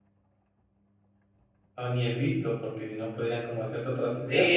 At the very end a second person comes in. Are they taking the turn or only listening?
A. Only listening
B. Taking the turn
B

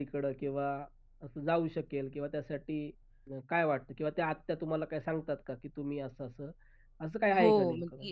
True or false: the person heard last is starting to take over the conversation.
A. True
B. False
A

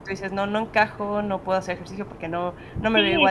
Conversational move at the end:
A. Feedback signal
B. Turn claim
B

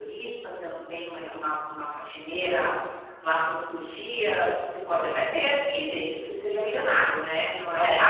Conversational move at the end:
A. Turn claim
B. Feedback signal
A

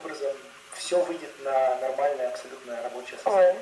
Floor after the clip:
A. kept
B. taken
B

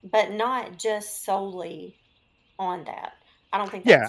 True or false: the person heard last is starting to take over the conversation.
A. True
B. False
A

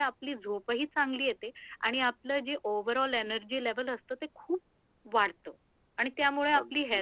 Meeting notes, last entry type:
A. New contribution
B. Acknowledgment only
B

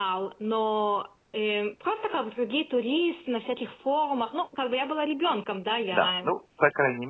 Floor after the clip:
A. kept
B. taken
B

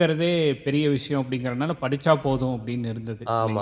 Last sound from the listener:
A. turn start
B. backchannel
A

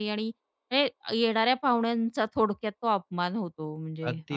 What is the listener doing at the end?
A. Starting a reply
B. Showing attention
A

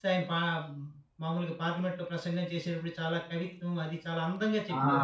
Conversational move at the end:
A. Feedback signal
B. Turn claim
B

